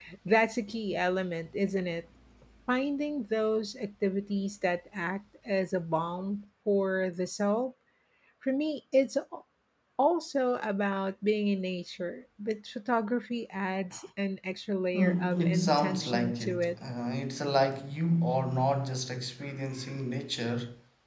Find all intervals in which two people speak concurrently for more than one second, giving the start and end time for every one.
14.9-16.8

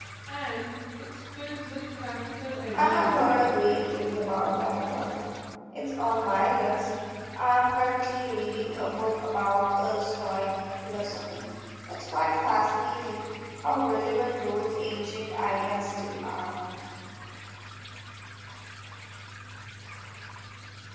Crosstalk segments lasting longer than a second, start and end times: none

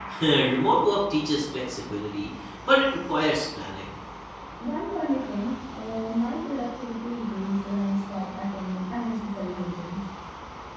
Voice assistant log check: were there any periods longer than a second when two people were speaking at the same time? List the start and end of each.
none

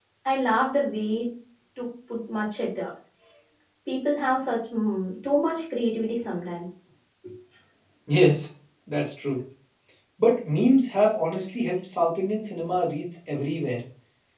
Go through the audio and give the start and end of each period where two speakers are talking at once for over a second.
none

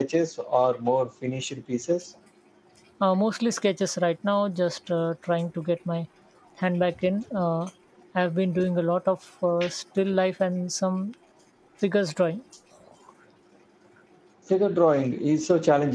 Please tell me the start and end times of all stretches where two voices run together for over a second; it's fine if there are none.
none

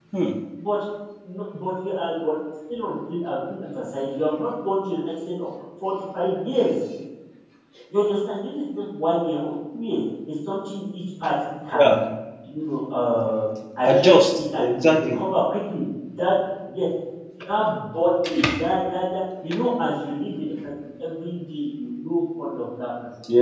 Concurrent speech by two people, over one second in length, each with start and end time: 13.8-15.2

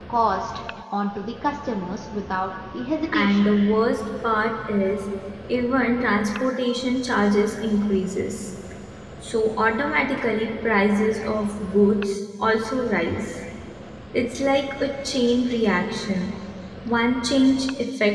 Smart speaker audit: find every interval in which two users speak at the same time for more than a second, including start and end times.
none

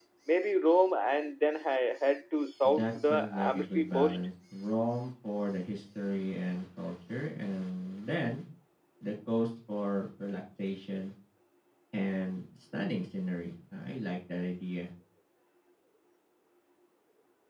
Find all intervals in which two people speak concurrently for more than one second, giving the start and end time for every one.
2.6-4.2

